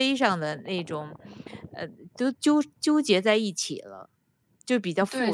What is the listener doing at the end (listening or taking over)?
taking over